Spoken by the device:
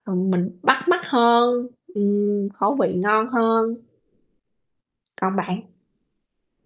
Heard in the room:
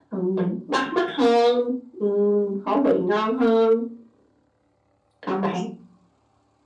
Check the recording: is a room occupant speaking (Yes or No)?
No